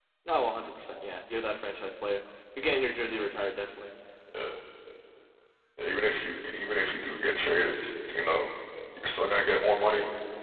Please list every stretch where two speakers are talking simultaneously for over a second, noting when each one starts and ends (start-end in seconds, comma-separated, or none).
none